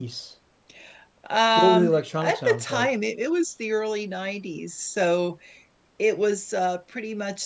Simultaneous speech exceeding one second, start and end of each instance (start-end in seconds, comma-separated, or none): 1.6-2.9